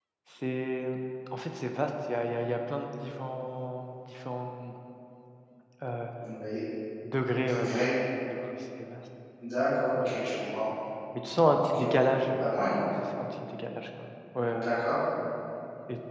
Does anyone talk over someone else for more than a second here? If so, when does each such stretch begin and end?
none

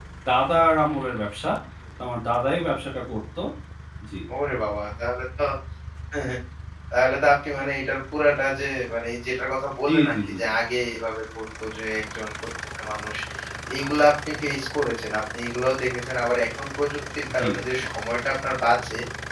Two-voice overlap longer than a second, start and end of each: none

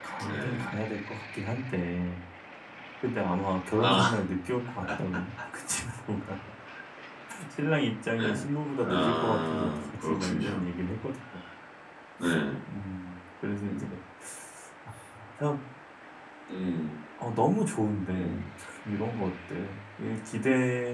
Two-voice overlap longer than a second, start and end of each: 8.9-10.5

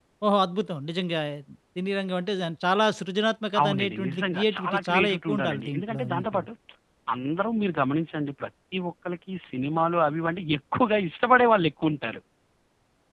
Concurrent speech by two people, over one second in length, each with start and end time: 3.6-6.4

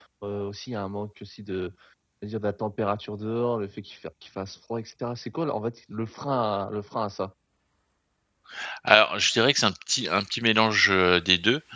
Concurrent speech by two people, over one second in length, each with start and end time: none

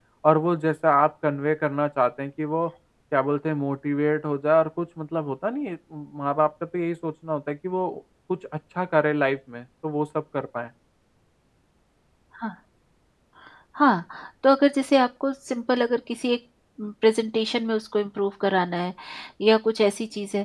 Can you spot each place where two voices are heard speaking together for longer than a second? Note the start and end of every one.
none

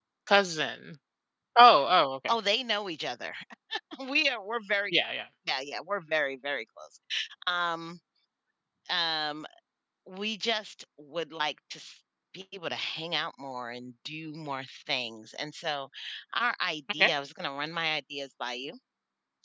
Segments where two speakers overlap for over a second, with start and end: none

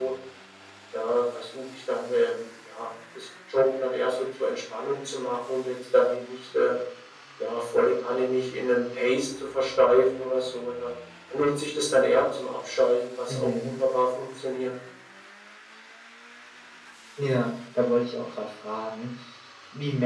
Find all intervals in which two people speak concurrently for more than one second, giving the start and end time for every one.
none

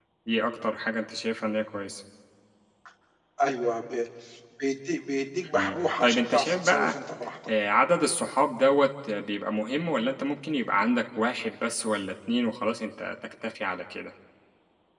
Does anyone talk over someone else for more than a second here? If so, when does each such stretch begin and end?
5.5-6.9

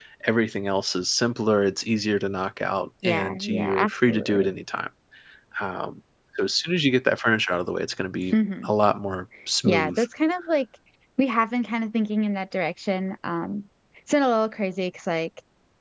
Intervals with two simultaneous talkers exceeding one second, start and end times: 3.0-4.5

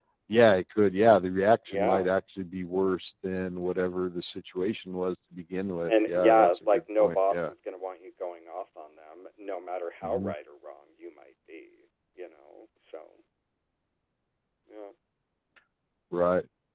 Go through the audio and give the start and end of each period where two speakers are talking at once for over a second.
5.9-7.5

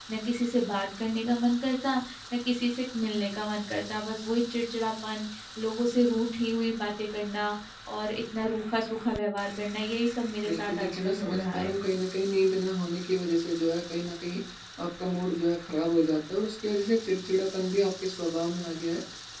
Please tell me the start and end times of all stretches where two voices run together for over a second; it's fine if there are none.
10.4-11.7

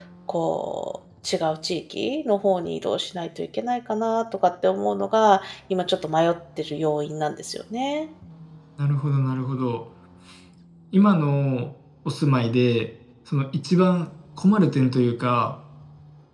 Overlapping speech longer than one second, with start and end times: none

